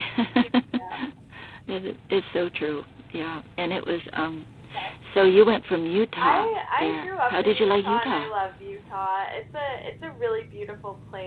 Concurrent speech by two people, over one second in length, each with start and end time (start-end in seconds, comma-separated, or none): 6.2-8.3